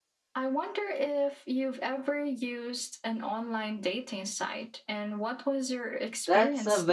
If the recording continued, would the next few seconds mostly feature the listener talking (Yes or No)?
Yes